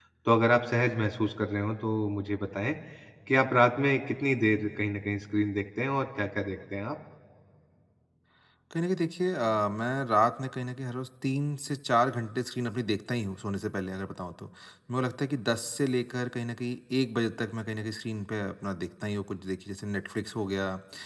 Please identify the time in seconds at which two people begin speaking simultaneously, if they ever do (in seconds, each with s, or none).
none